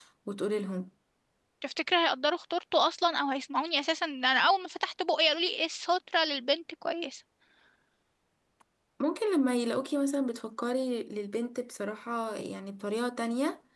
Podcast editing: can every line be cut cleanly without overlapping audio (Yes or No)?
Yes